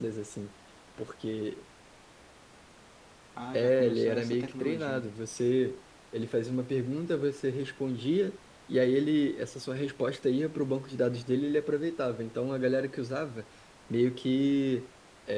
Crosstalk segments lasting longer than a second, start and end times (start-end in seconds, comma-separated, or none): 3.5-5.1